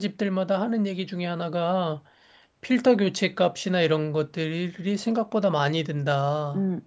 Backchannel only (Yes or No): No